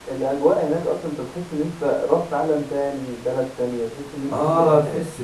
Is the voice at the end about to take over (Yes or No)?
Yes